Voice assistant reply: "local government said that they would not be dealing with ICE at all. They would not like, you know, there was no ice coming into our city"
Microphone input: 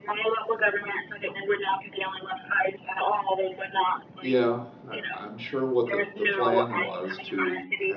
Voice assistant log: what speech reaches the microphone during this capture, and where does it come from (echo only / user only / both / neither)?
both